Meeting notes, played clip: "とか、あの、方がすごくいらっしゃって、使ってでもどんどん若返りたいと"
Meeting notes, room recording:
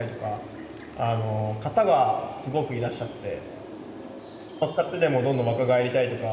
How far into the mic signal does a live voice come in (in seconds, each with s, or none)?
none